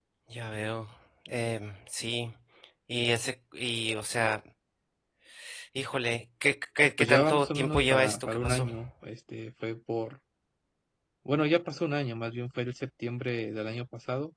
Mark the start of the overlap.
7.0 s

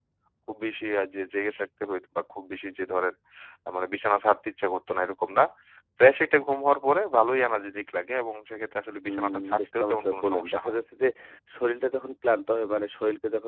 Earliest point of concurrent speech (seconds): 9.1 s

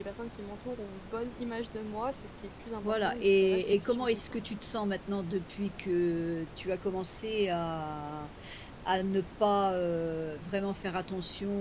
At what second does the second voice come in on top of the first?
2.8 s

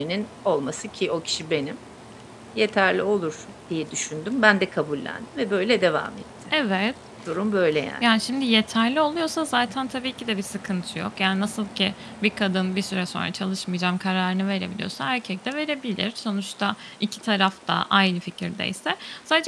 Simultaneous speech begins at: none

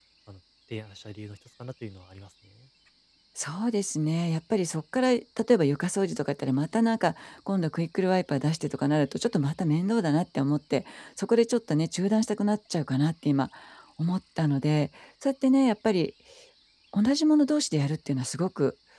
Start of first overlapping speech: none

